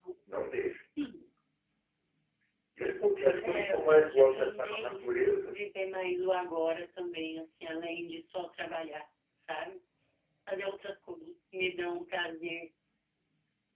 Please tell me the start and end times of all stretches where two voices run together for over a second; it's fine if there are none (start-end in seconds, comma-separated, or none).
3.4-5.6